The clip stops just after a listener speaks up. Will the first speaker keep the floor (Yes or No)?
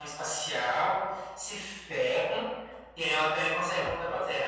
Yes